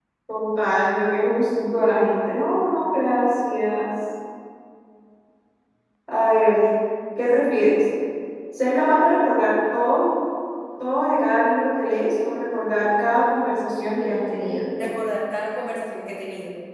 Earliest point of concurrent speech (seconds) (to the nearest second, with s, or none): none